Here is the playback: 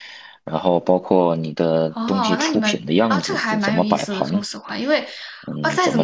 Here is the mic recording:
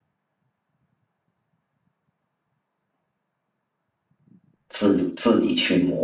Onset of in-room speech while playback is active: 4.7 s

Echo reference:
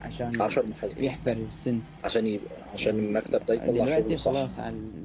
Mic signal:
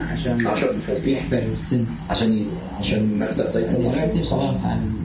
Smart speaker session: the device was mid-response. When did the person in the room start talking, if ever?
none

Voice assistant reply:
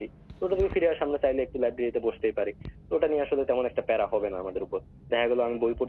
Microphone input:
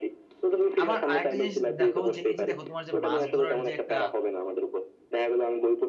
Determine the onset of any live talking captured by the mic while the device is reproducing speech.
0.8 s

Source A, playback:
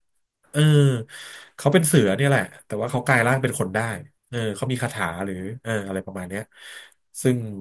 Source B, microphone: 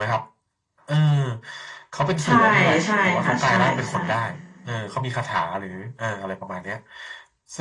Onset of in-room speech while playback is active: 2.2 s

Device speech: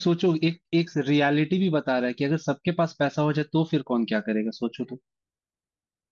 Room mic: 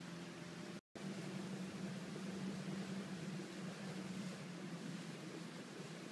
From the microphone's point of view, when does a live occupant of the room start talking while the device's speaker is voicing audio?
none

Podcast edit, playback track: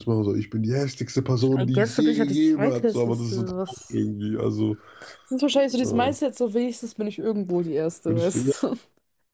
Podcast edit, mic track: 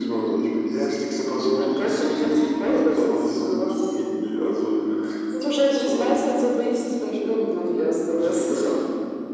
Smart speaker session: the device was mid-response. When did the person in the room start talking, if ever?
none

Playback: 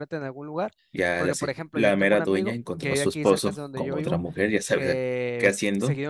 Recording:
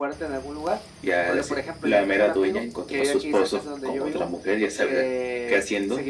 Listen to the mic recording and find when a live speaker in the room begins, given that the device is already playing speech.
none

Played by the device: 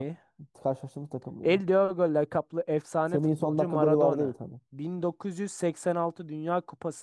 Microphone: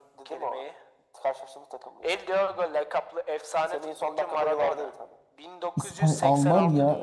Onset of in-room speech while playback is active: 5.8 s

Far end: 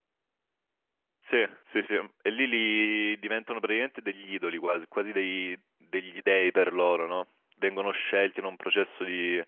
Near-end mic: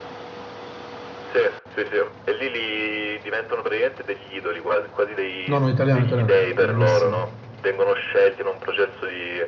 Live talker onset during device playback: 5.4 s

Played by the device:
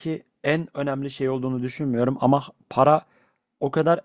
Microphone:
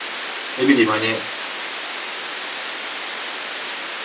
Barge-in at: 0.6 s

